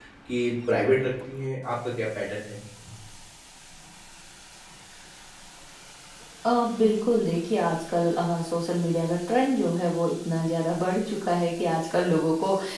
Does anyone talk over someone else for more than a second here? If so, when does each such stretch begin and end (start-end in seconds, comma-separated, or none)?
none